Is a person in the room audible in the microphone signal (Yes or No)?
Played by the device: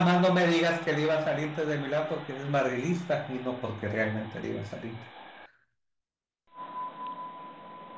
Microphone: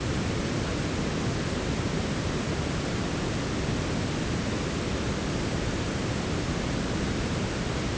No